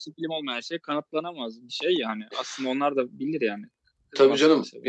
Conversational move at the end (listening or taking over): taking over